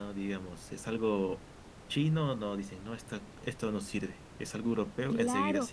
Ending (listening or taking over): taking over